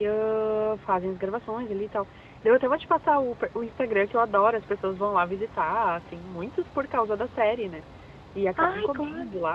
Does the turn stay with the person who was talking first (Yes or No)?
Yes